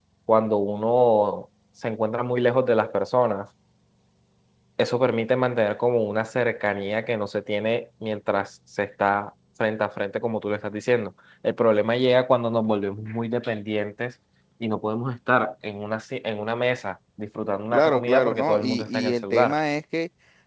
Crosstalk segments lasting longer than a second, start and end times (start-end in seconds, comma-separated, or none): 17.7-19.6